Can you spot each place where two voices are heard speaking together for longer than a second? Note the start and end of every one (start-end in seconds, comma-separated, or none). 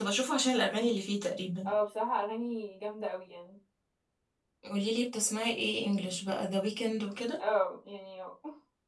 none